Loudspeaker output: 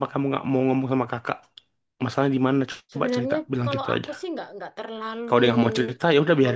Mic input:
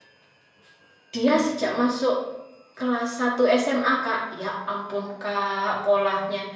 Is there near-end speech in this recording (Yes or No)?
Yes